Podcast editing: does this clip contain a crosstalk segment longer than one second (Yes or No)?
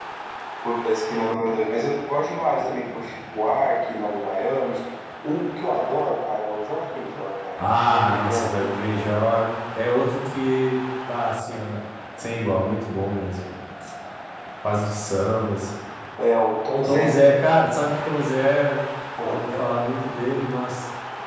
Yes